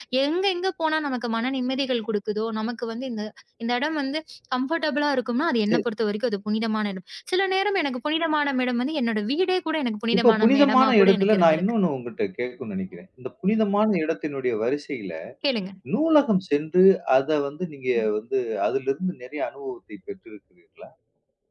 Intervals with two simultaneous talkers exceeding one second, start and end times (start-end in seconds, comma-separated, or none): 10.1-11.7